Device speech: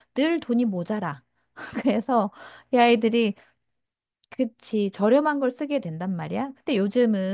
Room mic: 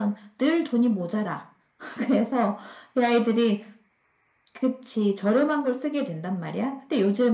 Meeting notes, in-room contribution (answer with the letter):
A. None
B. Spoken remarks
A